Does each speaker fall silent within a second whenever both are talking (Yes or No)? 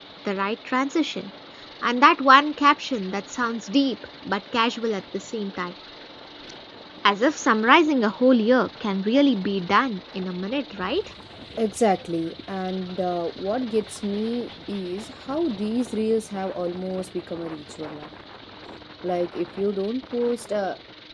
Yes